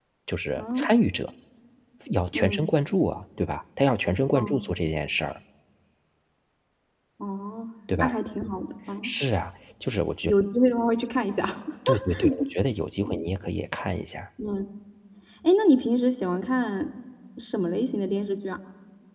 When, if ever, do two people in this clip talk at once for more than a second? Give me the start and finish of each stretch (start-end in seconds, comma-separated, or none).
none